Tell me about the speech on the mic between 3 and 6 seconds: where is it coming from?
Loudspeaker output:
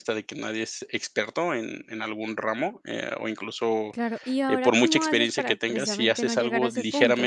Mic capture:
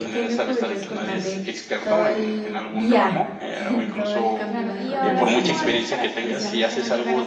both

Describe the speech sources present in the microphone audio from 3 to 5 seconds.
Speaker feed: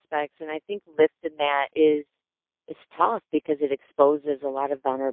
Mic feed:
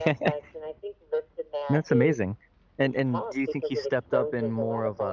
both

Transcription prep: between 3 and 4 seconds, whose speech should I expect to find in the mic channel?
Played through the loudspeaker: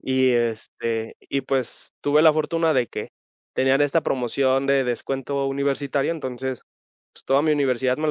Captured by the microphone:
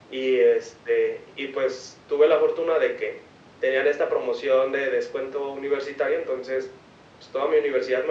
echo only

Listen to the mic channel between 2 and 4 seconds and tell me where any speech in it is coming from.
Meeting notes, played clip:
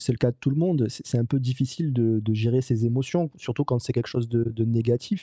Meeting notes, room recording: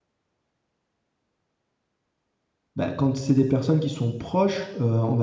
user only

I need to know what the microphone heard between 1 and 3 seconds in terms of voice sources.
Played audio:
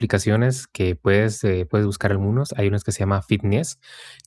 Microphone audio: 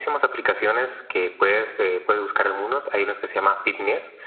echo only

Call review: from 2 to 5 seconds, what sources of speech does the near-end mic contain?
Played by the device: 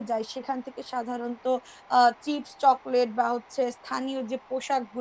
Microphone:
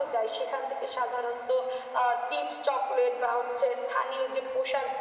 echo only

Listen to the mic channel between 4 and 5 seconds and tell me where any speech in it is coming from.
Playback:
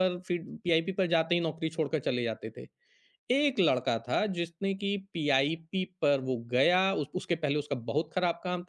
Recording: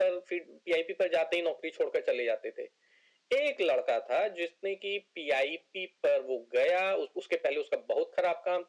echo only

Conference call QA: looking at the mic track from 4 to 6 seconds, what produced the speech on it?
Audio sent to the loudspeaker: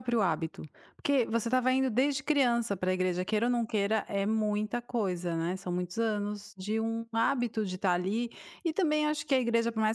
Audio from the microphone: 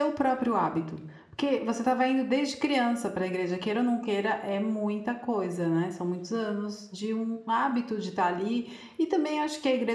echo only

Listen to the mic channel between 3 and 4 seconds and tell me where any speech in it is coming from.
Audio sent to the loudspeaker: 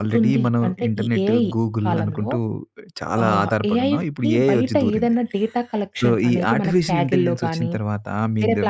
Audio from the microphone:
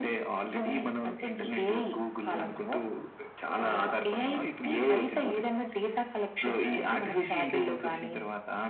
echo only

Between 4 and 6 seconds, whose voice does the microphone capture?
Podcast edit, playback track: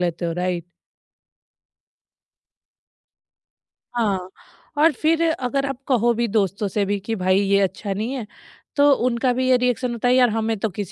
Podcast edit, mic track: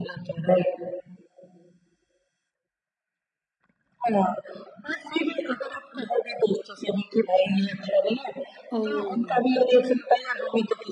echo only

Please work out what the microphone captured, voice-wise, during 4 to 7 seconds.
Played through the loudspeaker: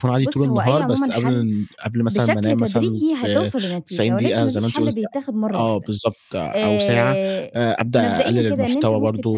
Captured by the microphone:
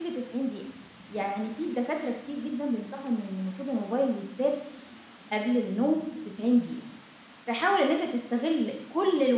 user only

